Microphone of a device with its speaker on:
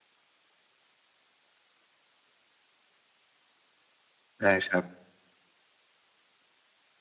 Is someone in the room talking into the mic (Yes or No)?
Yes